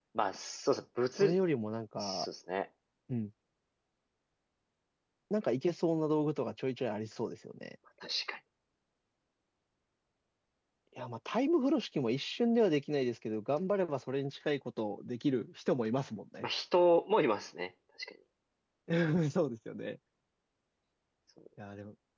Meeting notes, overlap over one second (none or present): none